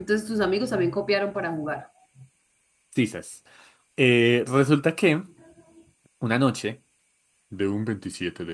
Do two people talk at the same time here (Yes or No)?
No